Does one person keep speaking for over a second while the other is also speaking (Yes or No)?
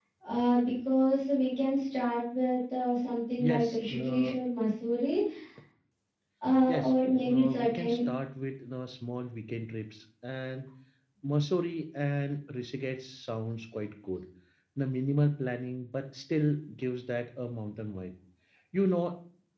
Yes